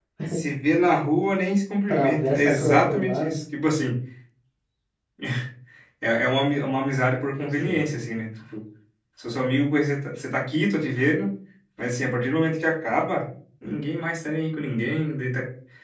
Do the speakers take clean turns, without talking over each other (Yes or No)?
No